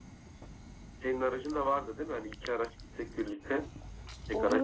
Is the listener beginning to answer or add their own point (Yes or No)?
Yes